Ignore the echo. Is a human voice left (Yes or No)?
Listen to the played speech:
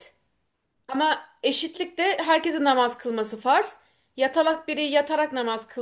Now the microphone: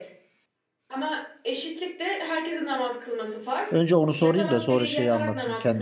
Yes